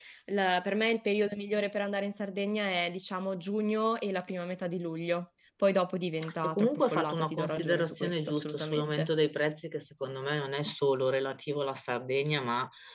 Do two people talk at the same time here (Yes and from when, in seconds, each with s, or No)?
Yes, from 6.2 s